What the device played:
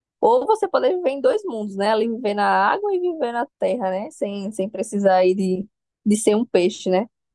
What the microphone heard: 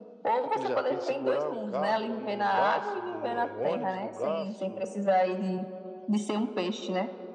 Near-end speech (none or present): present